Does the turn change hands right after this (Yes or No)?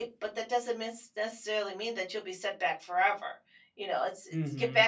No